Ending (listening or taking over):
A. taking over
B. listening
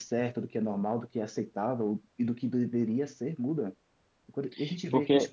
B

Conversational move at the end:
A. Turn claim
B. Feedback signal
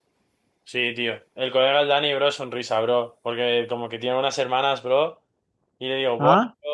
B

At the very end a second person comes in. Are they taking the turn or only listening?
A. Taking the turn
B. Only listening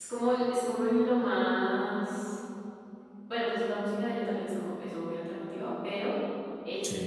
B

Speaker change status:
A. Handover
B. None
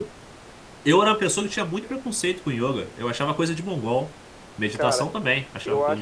A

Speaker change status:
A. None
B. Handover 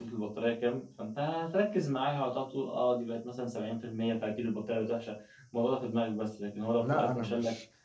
B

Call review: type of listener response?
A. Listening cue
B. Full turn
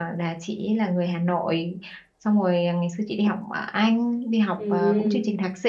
A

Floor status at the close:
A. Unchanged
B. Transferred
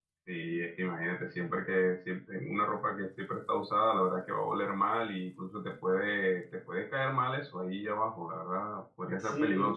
A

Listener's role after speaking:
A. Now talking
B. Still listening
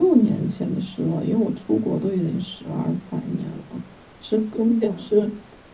B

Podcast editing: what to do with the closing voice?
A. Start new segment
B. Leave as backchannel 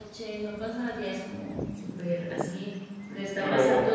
B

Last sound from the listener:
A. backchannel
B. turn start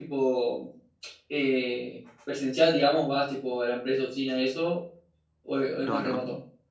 B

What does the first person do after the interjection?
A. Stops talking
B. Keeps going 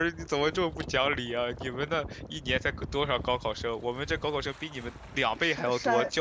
A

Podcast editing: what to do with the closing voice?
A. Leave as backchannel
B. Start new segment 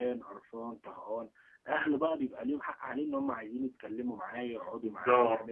B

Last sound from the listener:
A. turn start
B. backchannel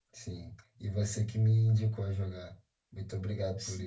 A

